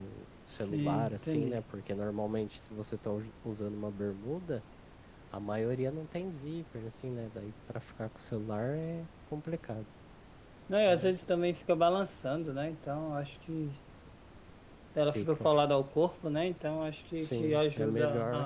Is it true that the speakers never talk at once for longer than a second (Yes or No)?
No